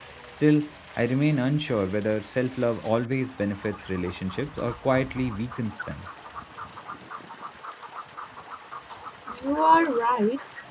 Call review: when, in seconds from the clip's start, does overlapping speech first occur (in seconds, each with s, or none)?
none